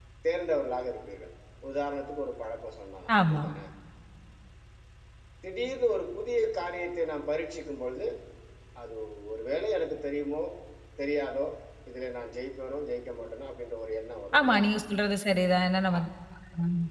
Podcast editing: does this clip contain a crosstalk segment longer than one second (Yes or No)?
No